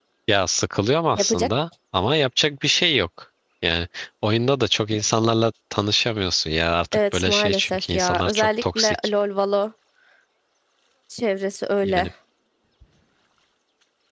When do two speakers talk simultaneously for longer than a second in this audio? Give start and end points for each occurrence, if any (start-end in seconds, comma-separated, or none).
6.9-9.1